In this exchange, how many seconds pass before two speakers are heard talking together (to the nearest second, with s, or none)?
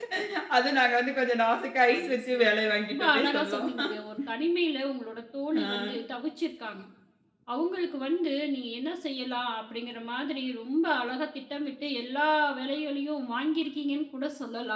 2 s